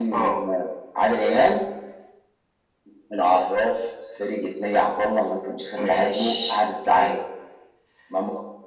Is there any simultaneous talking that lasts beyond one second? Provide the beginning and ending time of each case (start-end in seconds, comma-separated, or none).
5.8-7.2